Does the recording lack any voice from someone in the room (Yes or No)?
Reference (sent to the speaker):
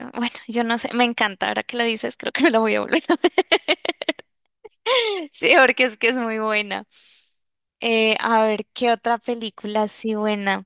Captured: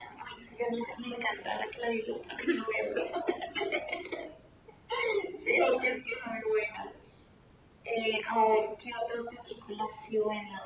Yes